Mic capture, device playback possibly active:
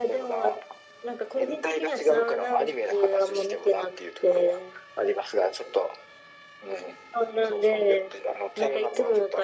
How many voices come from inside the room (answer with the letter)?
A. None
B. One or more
A